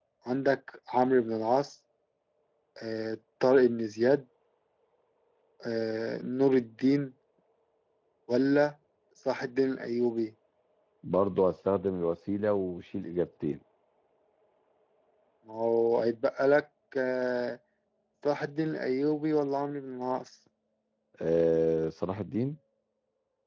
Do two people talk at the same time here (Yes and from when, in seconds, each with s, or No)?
No